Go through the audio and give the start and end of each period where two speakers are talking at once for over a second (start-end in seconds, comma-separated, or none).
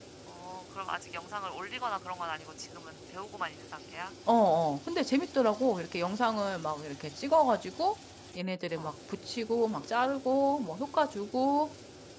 none